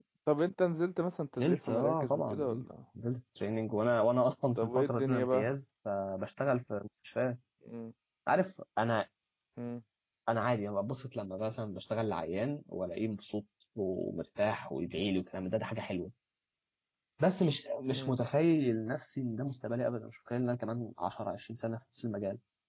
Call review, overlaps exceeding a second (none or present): present